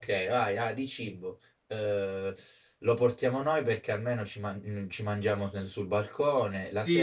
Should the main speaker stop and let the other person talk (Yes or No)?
Yes